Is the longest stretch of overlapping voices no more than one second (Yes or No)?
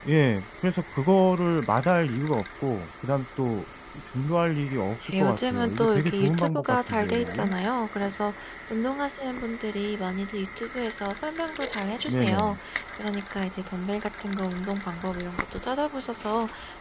No